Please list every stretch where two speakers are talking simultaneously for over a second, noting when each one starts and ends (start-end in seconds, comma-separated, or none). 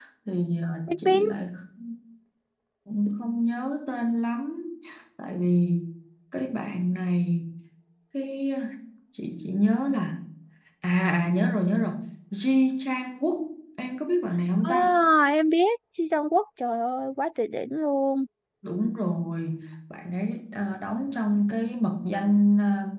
none